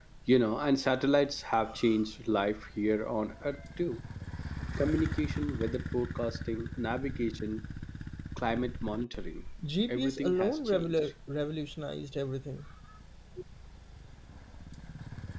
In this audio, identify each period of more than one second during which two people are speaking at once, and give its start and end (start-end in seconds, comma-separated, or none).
9.9-11.1